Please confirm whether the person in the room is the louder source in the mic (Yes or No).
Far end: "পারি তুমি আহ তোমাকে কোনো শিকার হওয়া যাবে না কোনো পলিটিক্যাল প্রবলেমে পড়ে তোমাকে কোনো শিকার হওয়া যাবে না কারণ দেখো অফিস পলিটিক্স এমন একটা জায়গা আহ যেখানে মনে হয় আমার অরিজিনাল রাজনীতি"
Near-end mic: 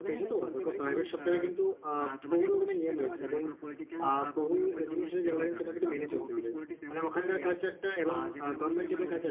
Yes